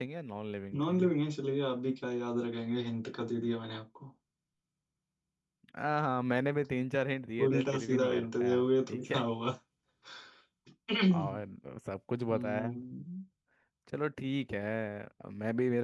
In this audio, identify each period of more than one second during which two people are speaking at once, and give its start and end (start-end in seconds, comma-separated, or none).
7.5-9.2